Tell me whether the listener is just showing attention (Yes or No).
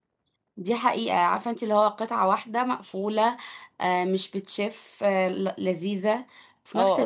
No